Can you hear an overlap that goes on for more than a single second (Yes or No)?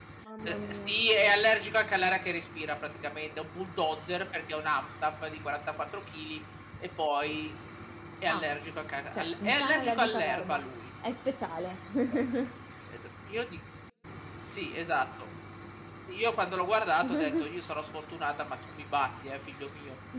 Yes